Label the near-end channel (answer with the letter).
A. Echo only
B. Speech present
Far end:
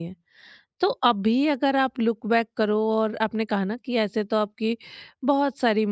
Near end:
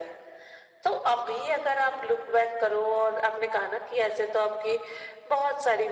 A